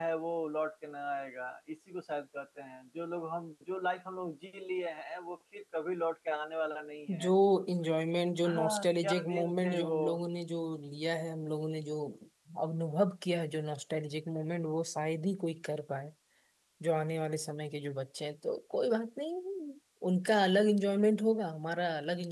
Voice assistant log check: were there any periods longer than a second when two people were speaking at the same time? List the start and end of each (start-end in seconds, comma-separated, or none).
8.4-9.9